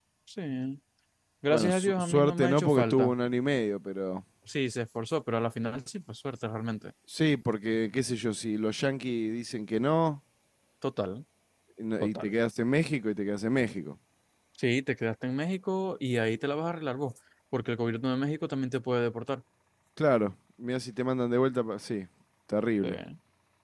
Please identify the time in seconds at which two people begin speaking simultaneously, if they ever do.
1.5 s

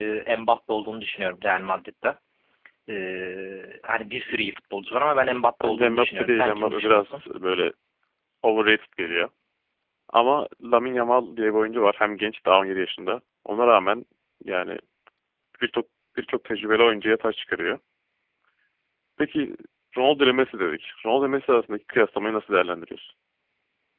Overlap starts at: 5.6 s

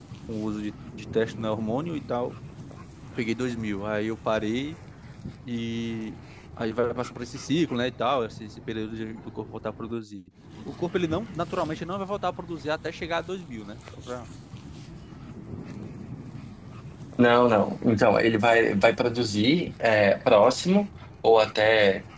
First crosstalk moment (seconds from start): none

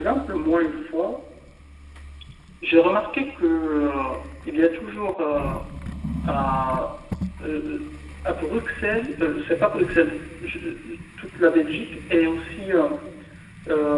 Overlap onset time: none

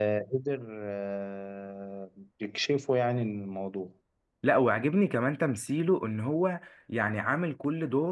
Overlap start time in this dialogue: none

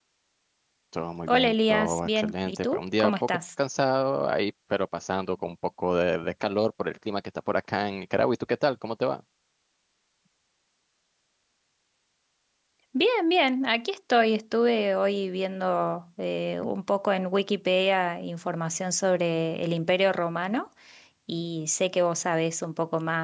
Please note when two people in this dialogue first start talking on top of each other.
1.3 s

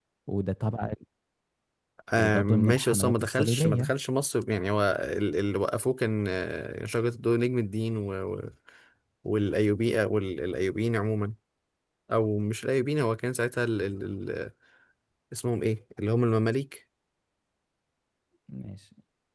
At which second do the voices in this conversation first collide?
2.2 s

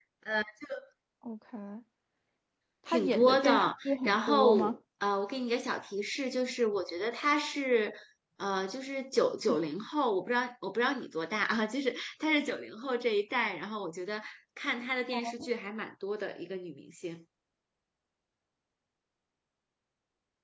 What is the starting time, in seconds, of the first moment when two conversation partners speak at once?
2.9 s

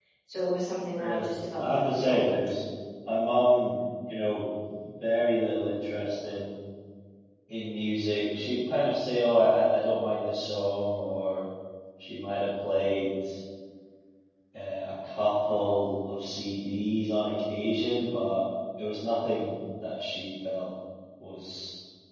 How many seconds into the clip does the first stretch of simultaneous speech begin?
1.0 s

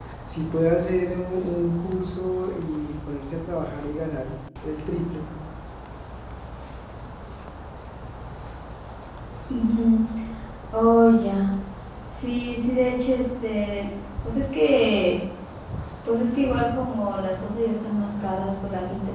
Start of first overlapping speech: none

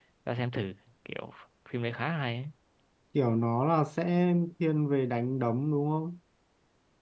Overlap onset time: none

